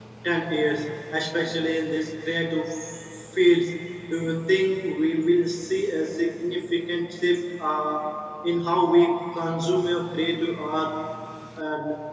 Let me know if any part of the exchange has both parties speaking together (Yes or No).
No